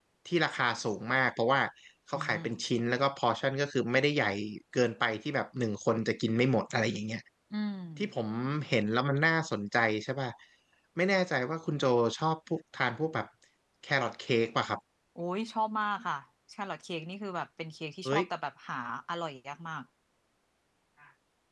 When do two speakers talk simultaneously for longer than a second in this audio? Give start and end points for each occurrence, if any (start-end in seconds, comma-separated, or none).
none